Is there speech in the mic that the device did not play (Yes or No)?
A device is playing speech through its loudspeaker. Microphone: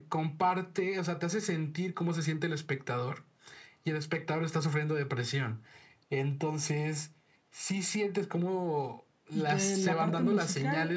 Yes